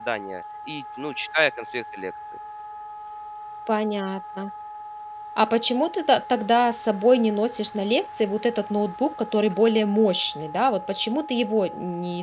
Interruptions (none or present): none